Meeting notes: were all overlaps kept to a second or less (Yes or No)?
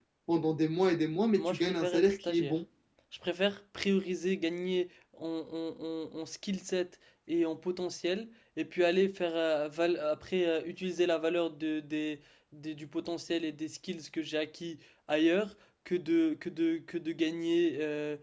No